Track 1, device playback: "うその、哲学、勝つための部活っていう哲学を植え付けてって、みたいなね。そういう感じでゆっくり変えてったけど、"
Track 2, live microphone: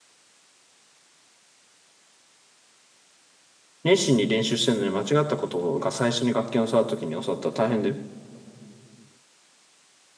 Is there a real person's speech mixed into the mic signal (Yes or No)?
Yes